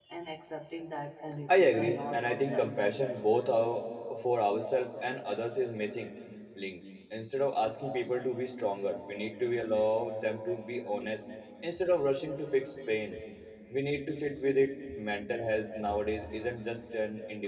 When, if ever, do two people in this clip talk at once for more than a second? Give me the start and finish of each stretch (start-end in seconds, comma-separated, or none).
1.5-3.2